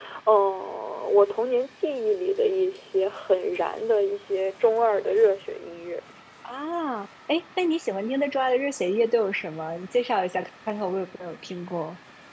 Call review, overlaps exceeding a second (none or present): none